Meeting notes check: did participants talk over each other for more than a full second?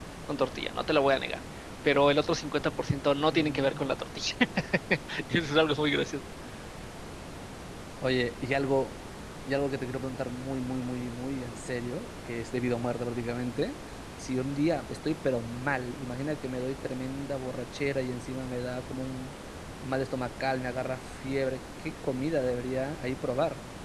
No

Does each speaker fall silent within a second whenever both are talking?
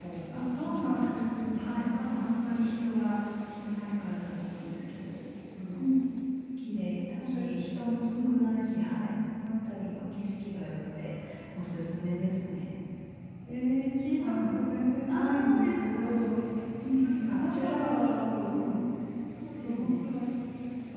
No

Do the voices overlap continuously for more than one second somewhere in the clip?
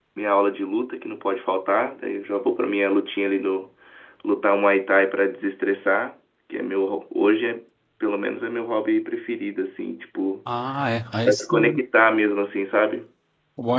No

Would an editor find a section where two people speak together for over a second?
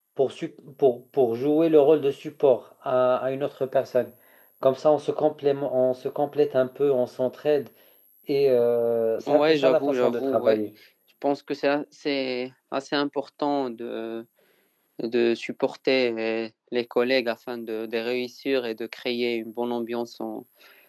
Yes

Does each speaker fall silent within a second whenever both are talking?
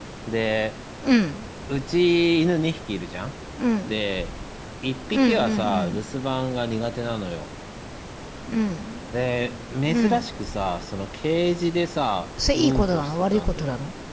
No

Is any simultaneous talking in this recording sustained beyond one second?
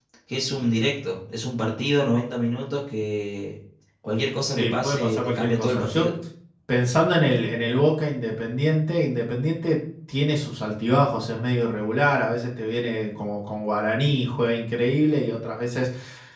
Yes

